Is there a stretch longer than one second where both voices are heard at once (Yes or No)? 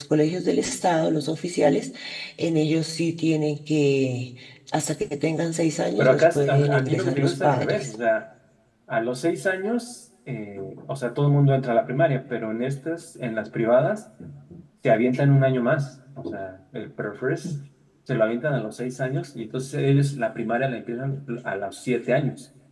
Yes